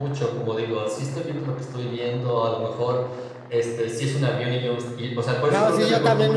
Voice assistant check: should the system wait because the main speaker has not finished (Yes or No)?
No